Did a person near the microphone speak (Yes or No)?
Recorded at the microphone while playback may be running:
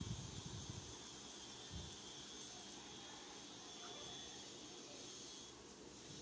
No